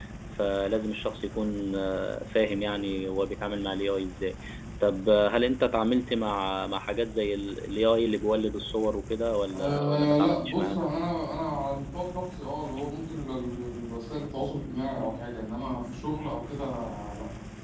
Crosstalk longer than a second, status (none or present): present